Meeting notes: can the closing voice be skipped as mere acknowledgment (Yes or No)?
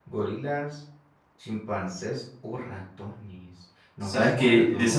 No